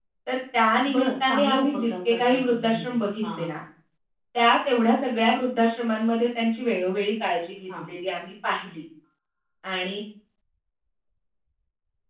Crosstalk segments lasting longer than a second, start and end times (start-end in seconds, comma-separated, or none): 0.9-3.5